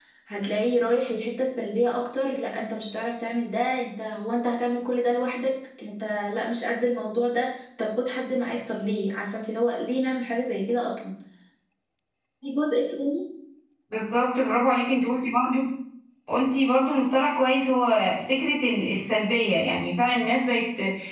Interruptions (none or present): none